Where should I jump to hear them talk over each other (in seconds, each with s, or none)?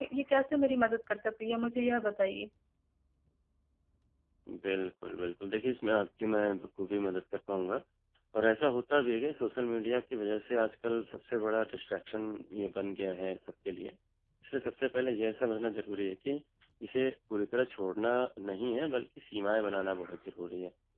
none